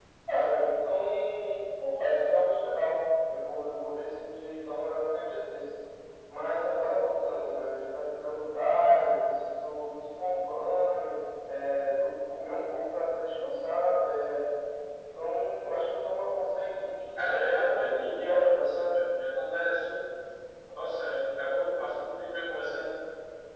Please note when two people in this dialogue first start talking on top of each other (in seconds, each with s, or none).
17.1 s